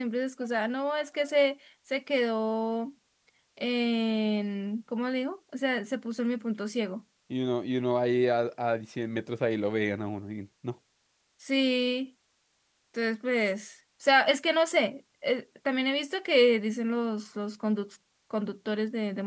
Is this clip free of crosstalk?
Yes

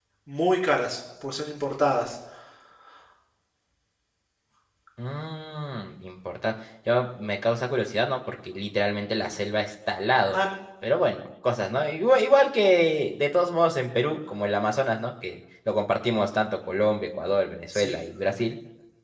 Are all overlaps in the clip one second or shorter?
Yes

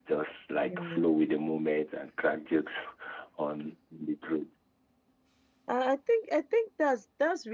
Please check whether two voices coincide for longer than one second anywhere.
No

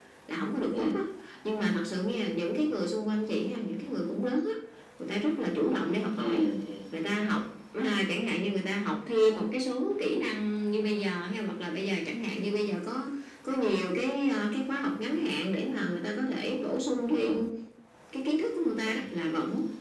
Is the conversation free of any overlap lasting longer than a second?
Yes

